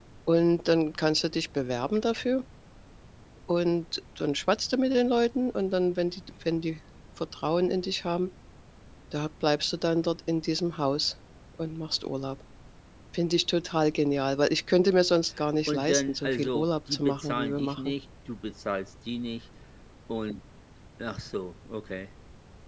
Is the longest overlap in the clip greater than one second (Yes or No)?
Yes